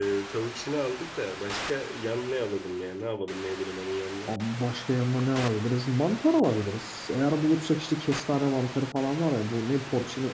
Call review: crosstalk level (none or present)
none